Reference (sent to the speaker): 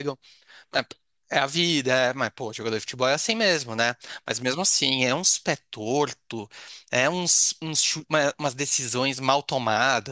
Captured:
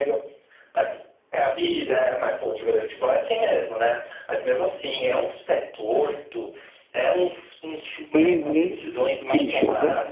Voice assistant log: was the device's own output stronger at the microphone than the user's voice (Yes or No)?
No